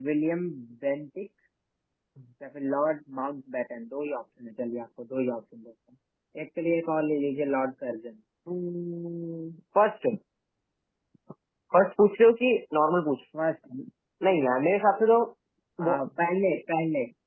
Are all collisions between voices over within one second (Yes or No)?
Yes